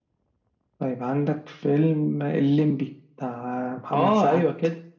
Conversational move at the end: taking over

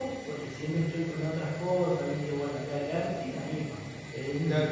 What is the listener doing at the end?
taking over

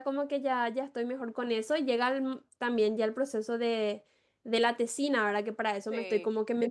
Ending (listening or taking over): listening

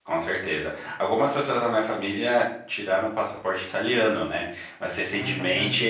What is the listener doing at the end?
listening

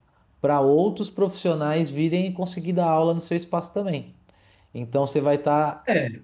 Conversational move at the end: listening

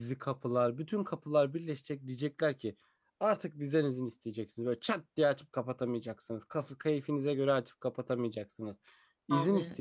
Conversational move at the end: listening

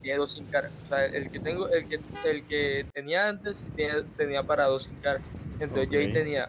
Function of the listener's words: listening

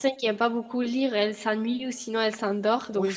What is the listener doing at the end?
taking over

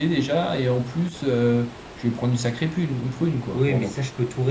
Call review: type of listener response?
taking over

